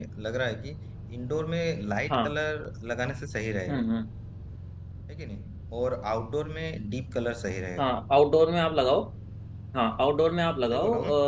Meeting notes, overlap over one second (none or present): none